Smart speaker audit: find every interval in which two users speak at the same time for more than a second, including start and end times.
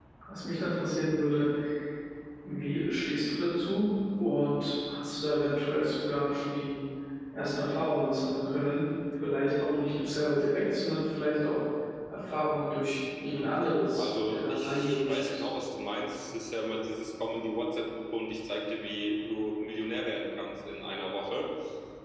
13.9-15.4

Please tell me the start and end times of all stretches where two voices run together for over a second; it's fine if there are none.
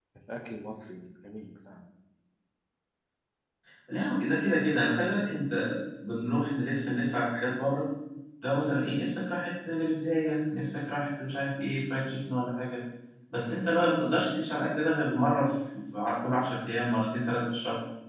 none

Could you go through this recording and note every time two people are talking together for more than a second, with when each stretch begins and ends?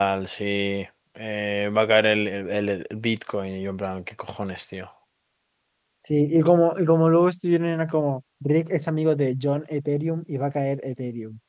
none

